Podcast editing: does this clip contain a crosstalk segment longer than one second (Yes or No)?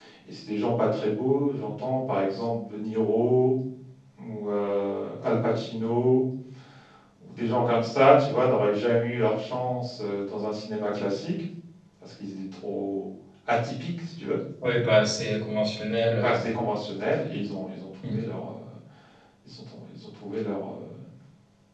No